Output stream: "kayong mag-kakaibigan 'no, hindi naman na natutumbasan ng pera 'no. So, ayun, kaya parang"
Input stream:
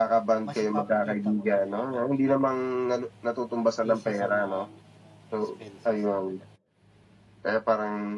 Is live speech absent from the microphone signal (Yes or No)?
No